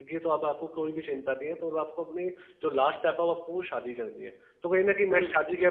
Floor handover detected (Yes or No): No